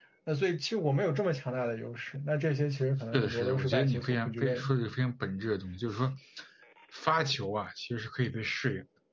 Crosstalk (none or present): present